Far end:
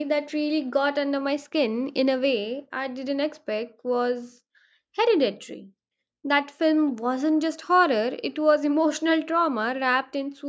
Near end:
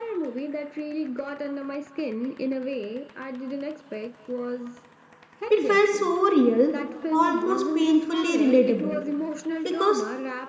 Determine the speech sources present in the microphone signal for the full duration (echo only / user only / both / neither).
both